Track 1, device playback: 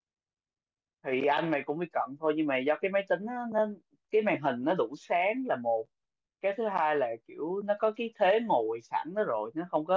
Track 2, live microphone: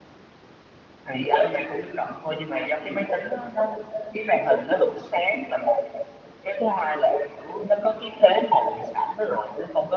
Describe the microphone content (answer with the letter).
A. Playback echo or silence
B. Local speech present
A